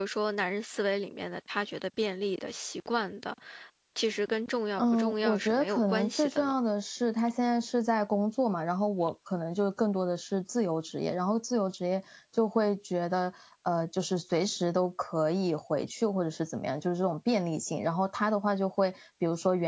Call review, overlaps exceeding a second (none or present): present